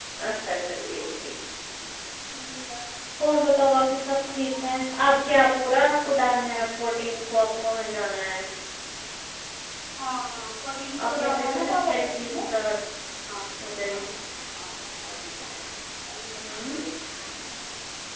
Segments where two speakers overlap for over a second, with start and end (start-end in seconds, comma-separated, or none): 11.0-12.4